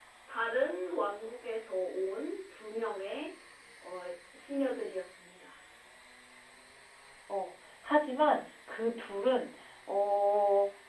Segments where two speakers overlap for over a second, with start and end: none

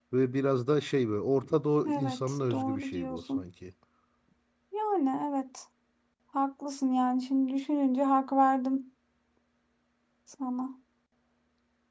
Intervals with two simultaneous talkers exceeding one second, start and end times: 1.9-3.4

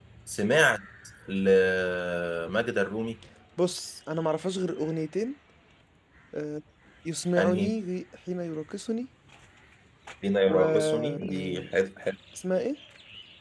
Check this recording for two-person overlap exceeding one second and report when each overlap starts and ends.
10.5-11.7

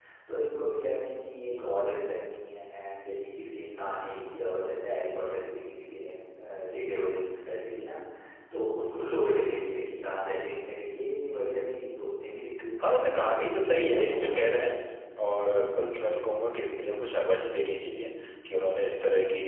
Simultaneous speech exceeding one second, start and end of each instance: 12.8-14.6

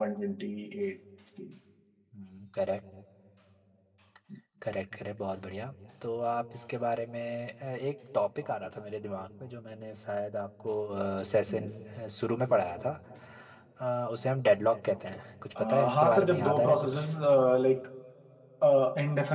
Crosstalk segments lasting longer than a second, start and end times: 15.6-17.1

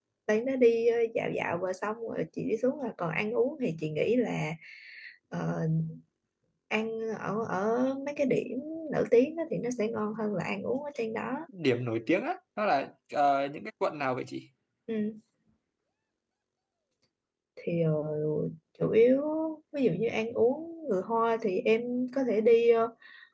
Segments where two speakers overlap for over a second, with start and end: none

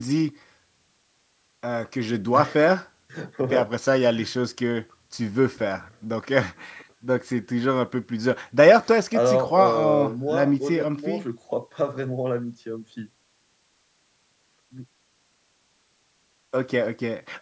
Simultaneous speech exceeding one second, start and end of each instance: 9.1-11.2

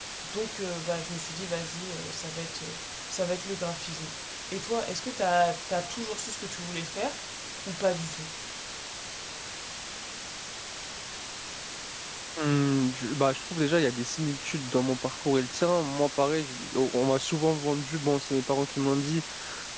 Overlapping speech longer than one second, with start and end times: none

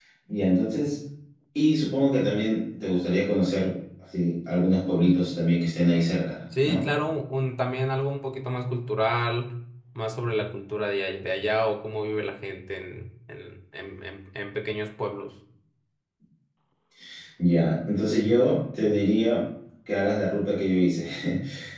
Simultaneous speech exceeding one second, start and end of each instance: none

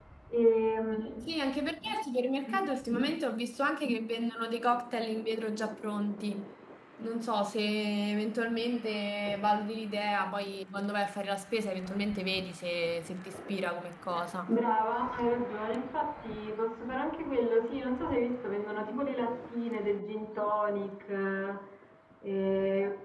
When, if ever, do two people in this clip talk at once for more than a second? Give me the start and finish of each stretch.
none

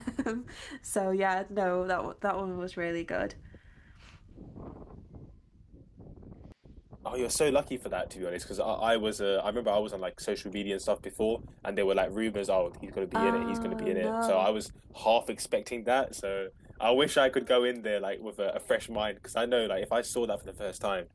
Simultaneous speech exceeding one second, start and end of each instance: 13.1-14.5

